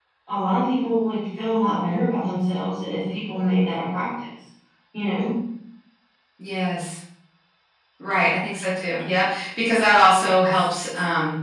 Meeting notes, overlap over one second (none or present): none